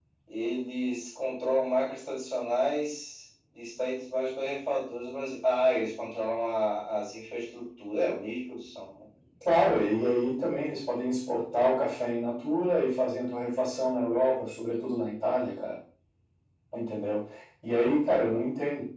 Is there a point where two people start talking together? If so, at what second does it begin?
none

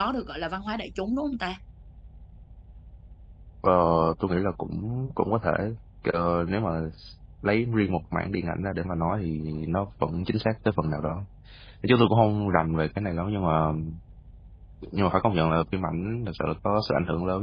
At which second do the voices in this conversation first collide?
none

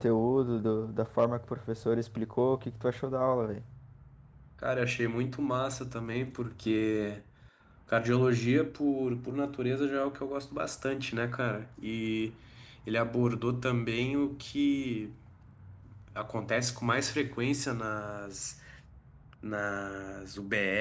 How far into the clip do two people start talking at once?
none

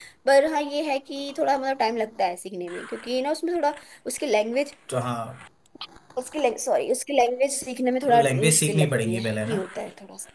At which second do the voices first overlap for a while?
8 s

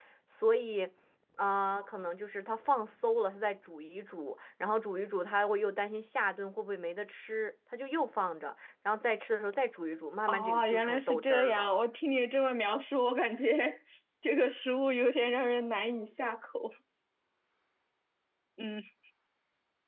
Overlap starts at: 10 s

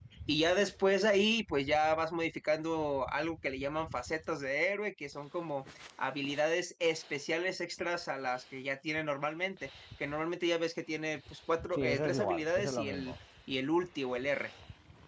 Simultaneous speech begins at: 12 s

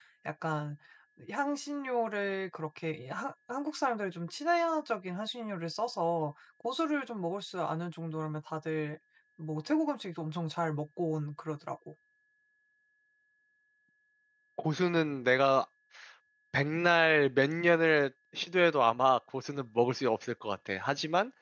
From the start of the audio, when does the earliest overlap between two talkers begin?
none

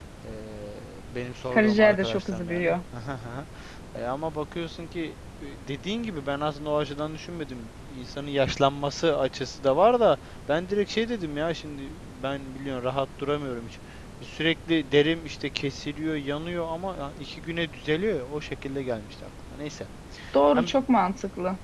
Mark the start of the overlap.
2 s

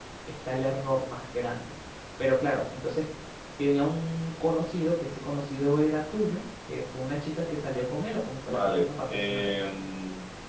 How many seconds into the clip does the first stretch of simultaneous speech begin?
8 s

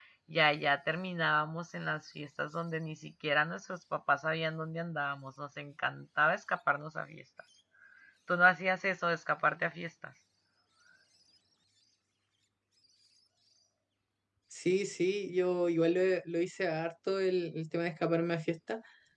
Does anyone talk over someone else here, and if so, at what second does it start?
none

